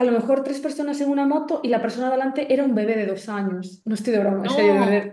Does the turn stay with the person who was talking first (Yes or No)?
Yes